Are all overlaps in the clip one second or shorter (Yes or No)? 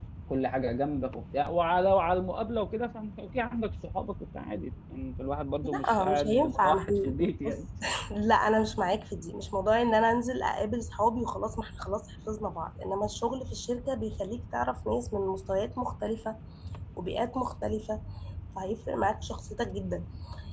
No